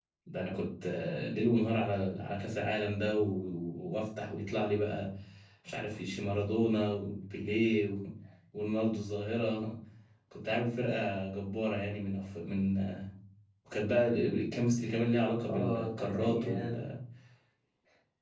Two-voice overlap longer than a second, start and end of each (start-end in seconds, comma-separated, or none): 15.5-16.9